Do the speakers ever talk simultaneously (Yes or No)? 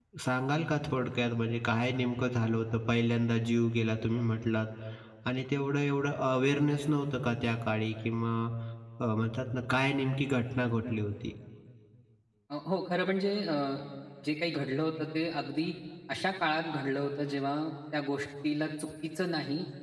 No